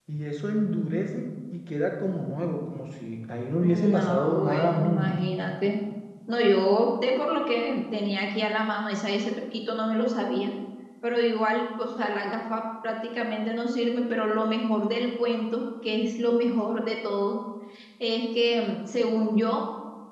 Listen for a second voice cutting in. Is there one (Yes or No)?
Yes